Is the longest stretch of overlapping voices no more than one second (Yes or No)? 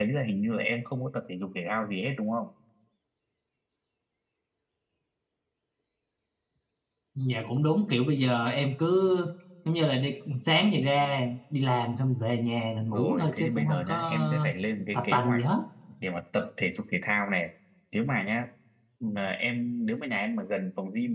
No